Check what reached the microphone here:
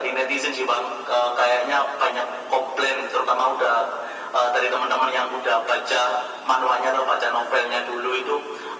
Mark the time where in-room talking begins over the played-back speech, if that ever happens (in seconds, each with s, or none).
none